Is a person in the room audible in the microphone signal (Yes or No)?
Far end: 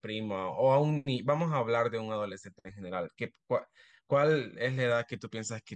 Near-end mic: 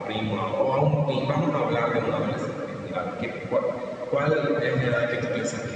No